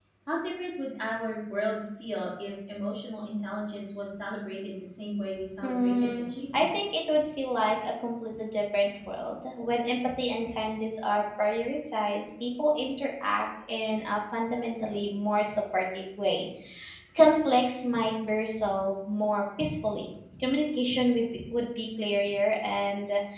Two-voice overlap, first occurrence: 5.6 s

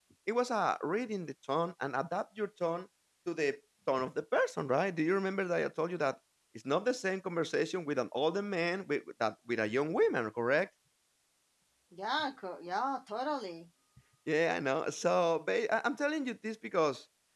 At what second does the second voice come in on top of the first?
none

